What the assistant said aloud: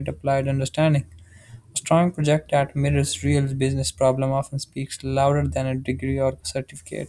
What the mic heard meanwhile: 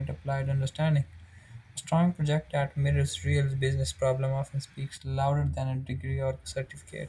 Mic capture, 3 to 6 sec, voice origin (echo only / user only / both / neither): echo only